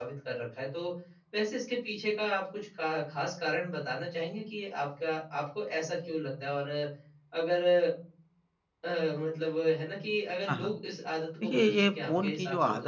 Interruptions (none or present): present